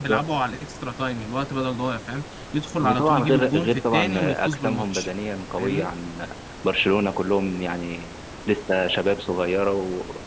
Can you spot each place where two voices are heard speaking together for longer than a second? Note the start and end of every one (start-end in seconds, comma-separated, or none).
2.8-5.1